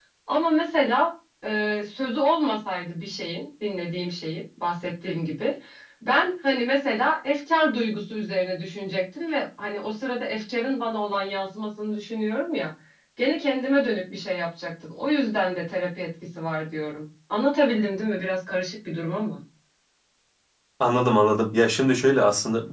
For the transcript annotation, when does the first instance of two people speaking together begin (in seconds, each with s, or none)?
none